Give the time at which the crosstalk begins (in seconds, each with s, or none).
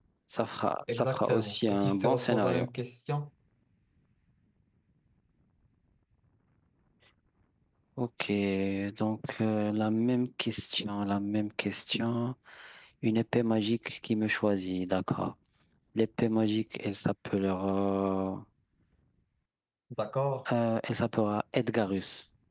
0.9 s